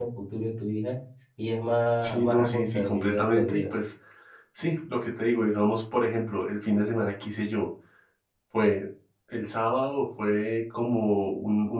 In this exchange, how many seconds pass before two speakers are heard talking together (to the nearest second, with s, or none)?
2 s